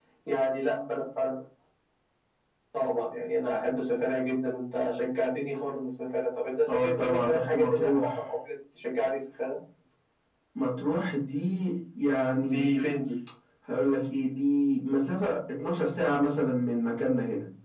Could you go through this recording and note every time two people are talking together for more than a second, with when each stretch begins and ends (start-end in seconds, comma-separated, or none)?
6.7-8.1